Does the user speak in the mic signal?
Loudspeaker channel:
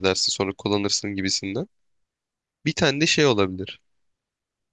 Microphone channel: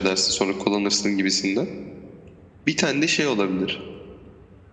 No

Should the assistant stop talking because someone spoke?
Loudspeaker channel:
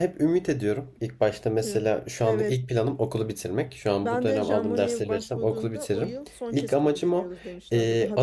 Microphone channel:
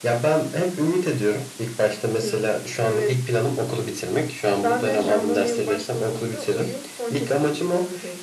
No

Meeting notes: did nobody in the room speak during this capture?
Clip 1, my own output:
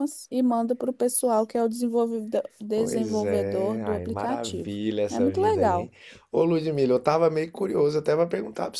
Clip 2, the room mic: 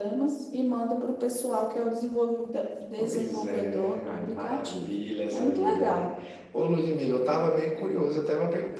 Yes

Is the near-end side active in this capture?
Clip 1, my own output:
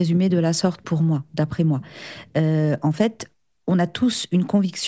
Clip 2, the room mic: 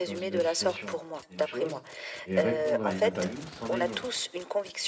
Yes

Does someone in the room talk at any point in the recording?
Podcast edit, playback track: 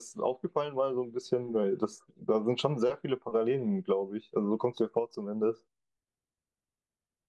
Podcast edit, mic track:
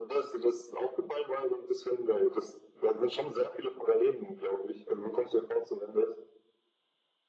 No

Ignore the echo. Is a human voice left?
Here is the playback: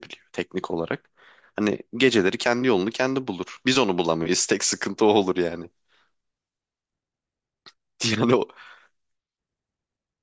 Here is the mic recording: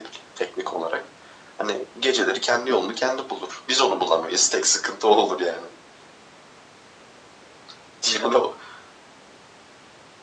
No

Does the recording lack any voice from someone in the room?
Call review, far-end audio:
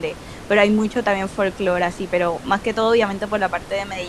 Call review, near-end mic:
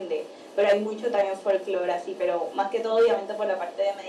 Yes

